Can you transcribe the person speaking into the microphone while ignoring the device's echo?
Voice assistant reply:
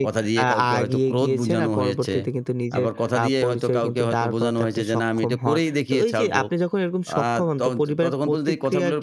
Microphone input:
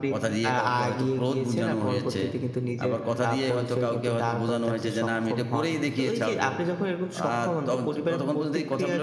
none

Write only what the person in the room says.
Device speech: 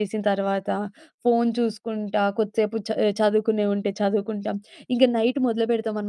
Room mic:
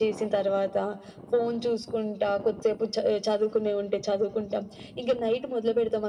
none

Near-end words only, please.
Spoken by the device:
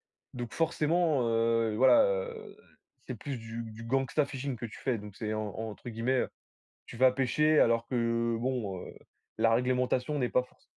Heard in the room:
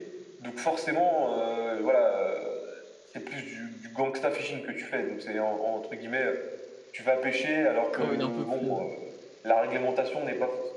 Comme il en peut plus. Ouais.

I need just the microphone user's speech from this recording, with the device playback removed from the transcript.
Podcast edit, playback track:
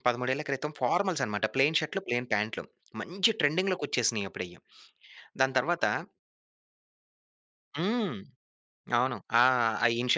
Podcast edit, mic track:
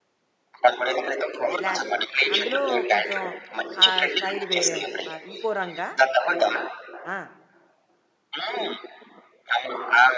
బ్లాక్ ప్యాంట్ అందులో కొంచెం ఆ స్టైల్ వేరేమో, ఆహ్, ఇంకో రంగా అక్కడ. ఆ!

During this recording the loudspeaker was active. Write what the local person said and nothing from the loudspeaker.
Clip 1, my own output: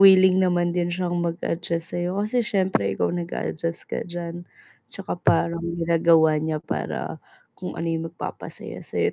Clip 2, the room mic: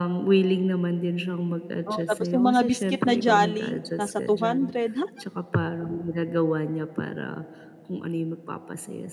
Oh, tapos yung mga biscuit na jolly nasa ₱200. Ha?

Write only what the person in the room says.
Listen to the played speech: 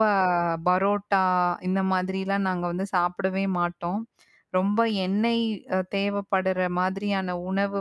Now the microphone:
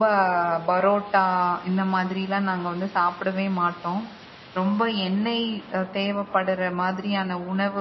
none

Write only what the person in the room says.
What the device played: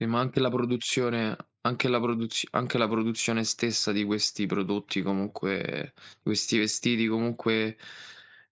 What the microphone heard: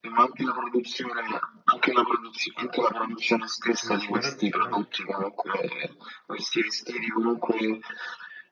quindi ci vorrebbe sicurame

